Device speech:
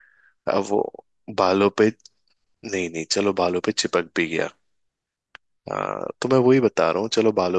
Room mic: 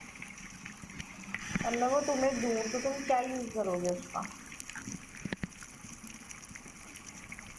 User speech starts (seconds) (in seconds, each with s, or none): 1.6 s